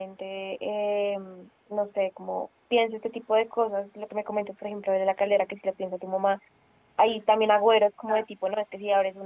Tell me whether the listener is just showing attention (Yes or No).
Yes